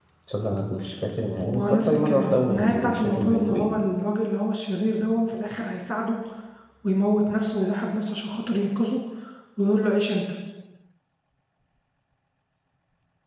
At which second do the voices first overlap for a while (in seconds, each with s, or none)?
1.5 s